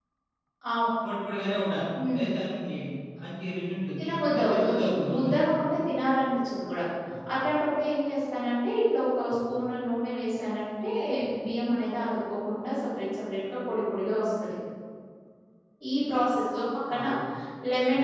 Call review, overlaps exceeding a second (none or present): present